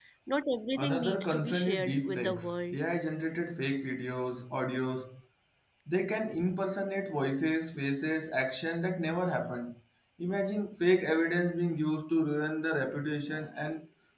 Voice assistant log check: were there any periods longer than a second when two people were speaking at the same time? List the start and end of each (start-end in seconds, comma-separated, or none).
0.8-2.8